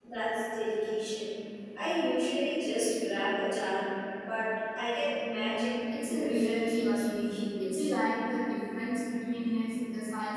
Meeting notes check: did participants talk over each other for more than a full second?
Yes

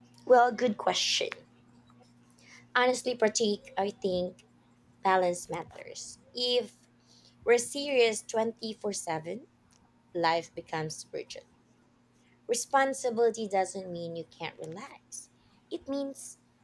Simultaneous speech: No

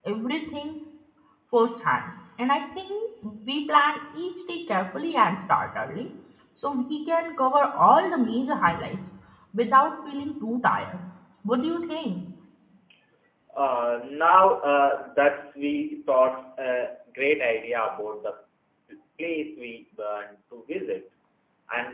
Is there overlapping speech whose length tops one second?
No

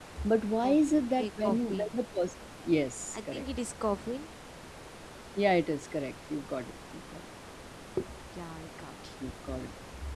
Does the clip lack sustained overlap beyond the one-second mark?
No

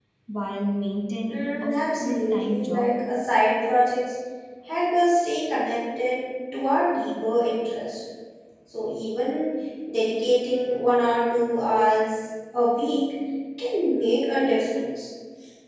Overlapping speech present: Yes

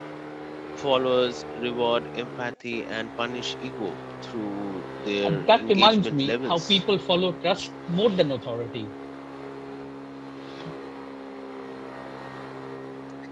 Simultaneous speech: Yes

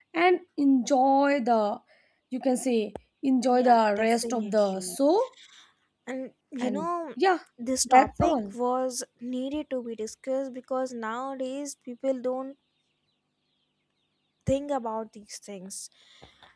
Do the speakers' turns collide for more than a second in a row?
Yes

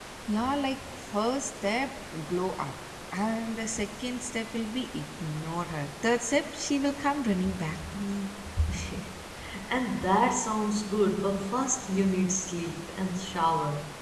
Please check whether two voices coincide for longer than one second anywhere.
No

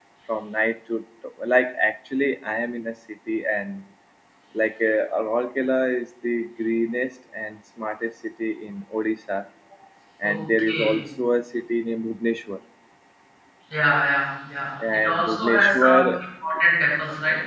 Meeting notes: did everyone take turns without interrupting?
No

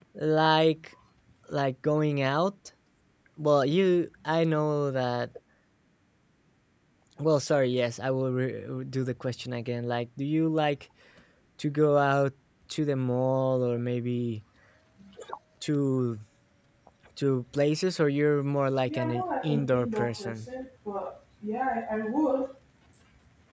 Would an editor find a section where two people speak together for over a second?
Yes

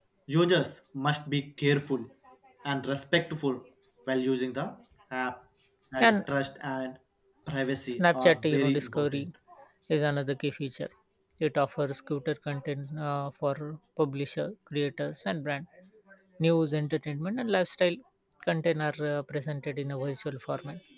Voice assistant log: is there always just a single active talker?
No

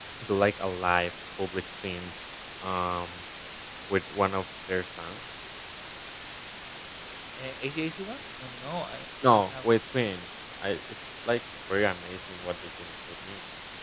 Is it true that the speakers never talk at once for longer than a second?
Yes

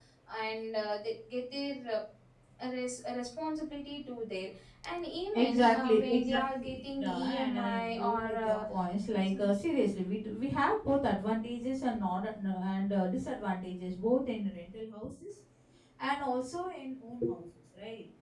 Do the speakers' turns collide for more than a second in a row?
Yes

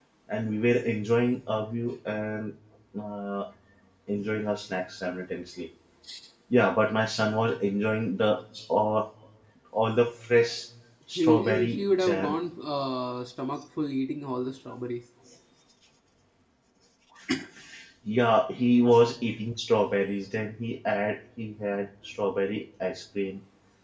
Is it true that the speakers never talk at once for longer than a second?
No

